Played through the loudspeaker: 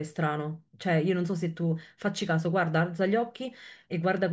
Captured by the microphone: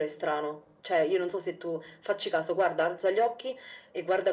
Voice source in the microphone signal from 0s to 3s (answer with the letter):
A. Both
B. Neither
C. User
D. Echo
D